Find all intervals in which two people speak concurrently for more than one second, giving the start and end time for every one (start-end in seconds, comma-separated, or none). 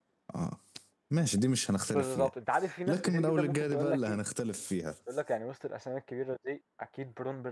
2.9-4.2